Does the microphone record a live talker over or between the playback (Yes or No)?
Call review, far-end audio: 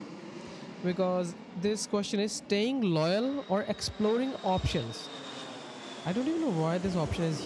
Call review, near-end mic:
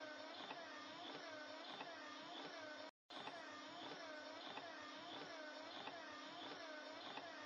No